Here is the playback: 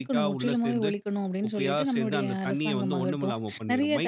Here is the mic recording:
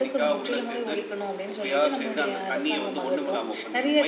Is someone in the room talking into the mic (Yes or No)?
No